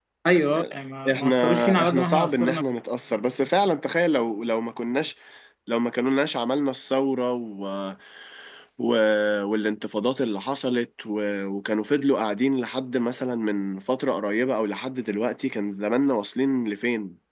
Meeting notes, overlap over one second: present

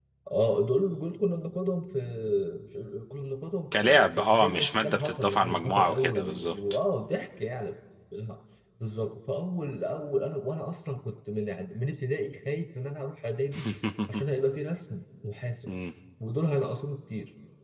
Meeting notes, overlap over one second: present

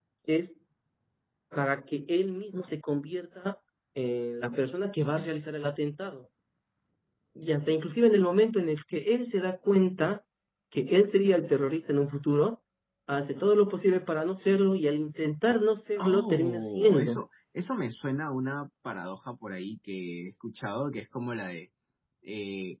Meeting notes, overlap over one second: present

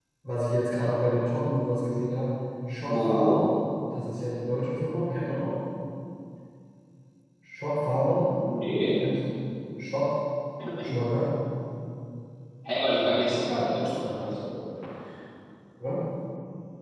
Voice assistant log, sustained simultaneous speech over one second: present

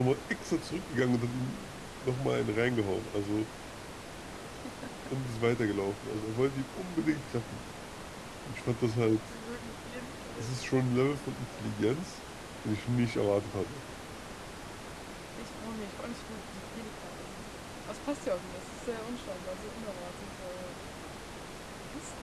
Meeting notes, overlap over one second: none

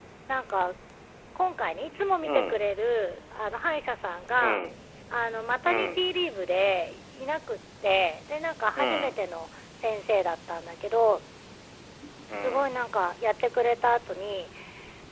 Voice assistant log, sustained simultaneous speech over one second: none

